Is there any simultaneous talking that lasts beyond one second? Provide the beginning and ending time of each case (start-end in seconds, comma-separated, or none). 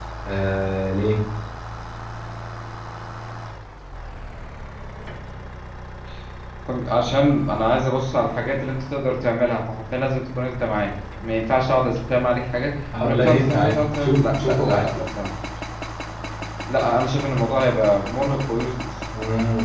13.0-15.0